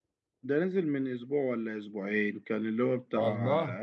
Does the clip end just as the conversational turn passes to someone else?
No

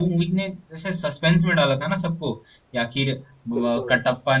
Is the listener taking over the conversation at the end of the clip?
No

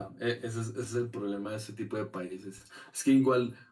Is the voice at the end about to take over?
No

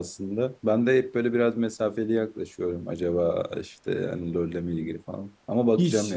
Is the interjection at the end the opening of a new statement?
Yes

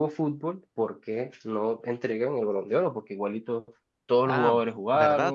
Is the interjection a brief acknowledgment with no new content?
No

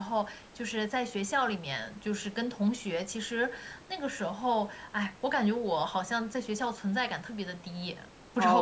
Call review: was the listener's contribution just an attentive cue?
No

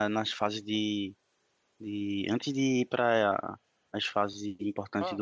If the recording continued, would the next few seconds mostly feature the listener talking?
Yes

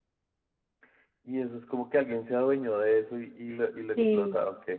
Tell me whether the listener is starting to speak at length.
Yes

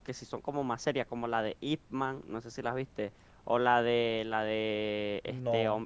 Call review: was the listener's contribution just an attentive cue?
Yes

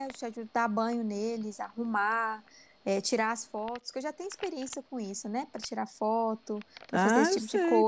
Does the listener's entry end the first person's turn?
Yes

